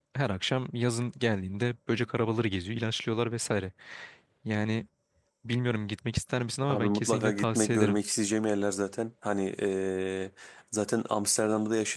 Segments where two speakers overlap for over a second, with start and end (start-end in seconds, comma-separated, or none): 6.7-8.0